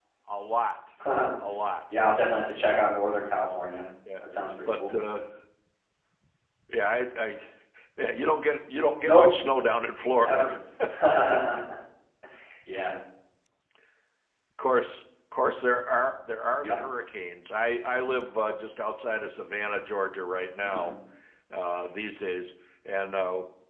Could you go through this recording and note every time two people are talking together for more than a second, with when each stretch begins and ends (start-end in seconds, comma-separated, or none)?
none